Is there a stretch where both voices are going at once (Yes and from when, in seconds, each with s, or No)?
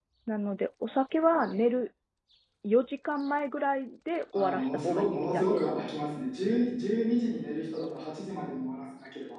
Yes, from 4.3 s